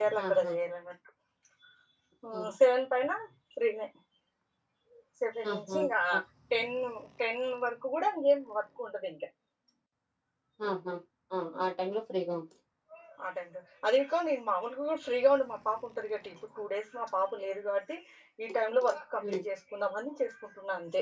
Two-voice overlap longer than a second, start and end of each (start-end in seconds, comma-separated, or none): none